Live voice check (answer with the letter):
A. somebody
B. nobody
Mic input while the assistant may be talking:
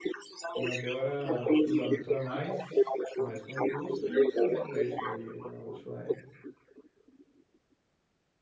A